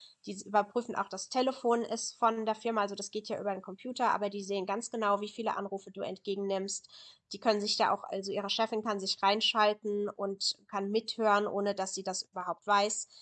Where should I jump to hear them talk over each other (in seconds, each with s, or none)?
none